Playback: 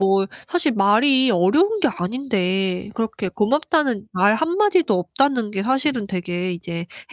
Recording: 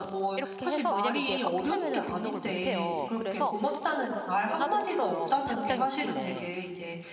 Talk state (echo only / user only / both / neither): both